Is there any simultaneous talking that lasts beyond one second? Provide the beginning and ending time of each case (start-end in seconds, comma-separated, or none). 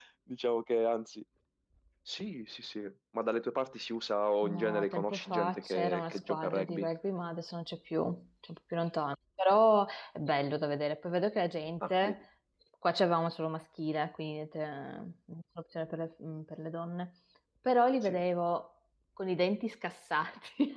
4.4-6.9